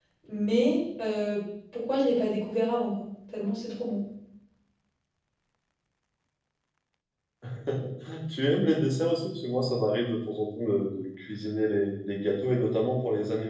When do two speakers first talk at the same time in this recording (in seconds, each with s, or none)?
none